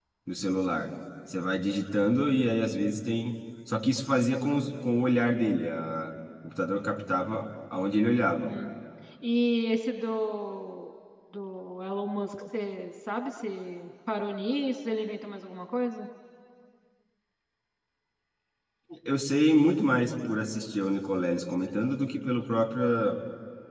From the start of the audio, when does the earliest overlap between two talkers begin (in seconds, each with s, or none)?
none